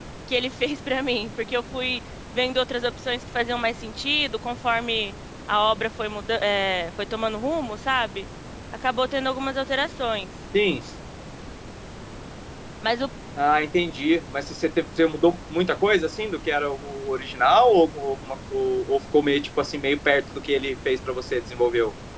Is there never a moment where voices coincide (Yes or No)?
Yes